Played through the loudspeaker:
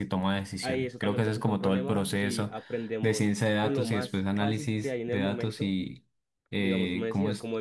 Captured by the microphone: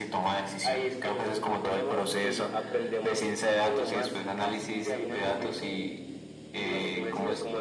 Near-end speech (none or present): none